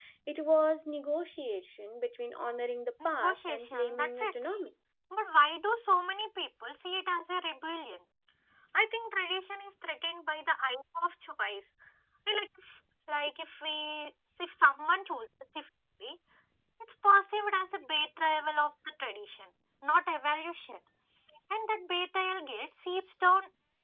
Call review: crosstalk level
present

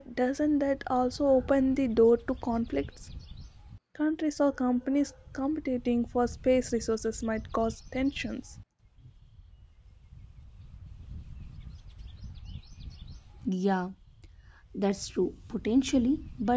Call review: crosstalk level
none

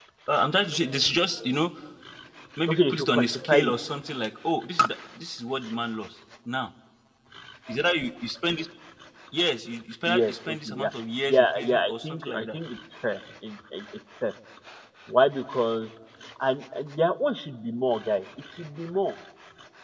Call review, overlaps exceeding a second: present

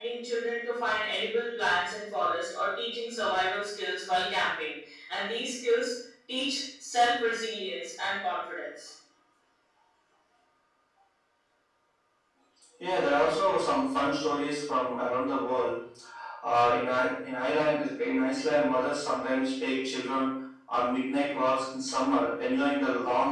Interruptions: none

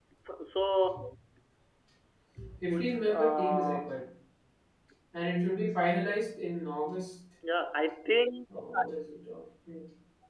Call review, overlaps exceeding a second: present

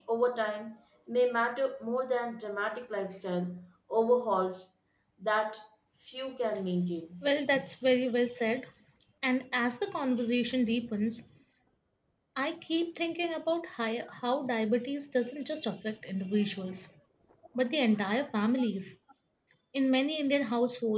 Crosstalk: none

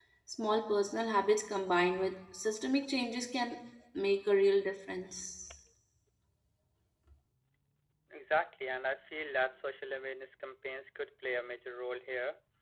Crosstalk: none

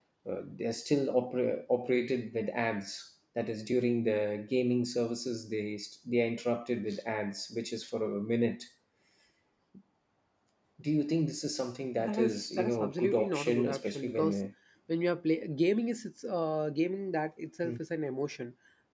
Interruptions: present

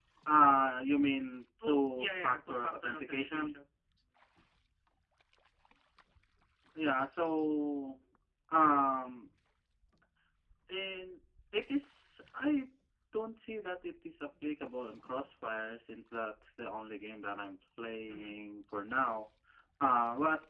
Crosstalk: present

